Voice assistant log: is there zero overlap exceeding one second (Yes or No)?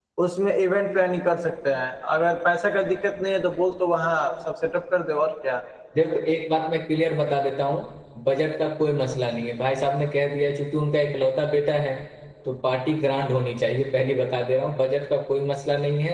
Yes